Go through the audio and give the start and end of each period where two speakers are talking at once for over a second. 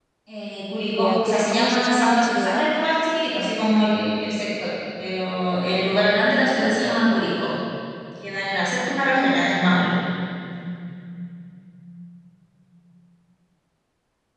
1.0-2.7

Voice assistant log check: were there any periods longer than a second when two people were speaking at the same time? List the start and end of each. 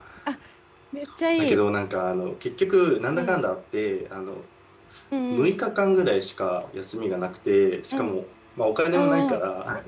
none

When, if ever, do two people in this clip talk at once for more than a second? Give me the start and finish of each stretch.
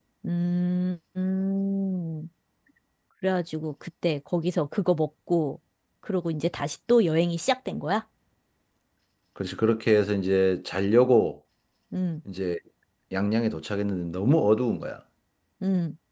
none

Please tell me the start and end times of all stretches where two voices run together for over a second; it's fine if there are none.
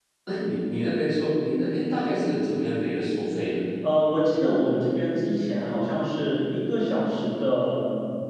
none

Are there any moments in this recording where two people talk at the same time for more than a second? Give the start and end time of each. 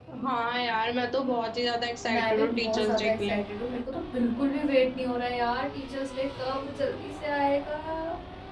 2.1-3.4

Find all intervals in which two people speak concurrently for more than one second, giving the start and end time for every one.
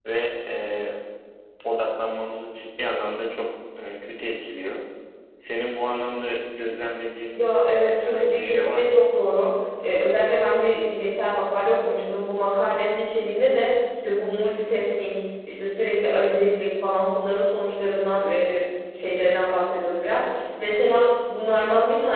7.3-9.0

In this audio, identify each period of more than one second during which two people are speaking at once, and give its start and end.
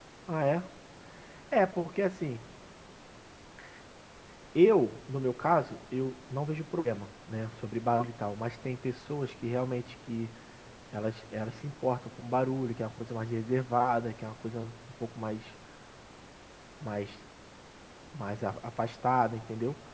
none

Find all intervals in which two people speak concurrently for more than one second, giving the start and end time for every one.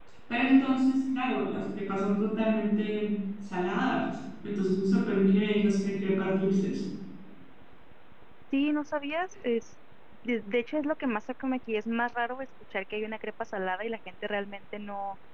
none

